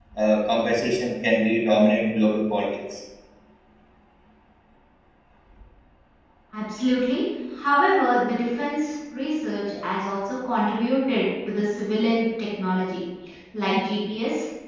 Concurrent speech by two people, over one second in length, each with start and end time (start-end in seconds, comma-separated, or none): none